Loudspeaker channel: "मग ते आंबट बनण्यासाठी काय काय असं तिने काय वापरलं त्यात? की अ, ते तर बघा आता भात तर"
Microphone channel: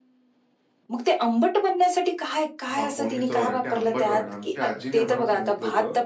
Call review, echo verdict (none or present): present